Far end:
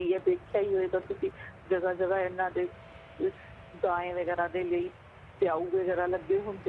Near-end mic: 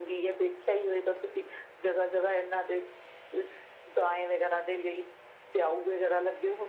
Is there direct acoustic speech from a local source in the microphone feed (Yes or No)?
No